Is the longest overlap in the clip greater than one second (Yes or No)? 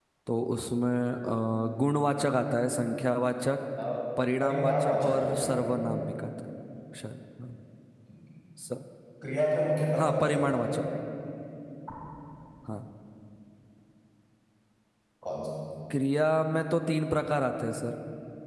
Yes